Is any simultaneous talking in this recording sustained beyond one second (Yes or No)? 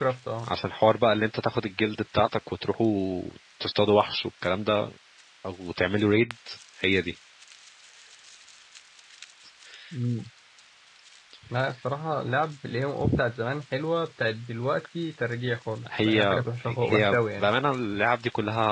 Yes